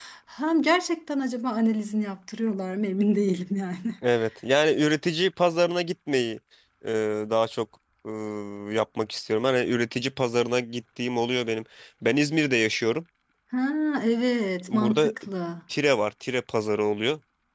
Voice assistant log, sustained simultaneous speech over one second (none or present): none